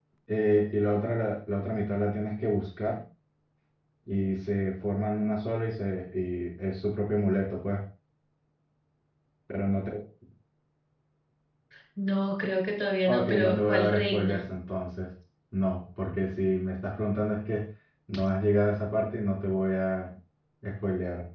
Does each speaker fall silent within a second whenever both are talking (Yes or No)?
No